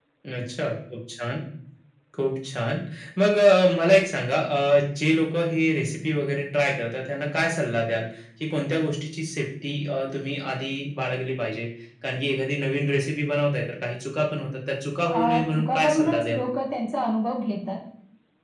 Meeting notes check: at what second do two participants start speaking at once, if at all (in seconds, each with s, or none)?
15.1 s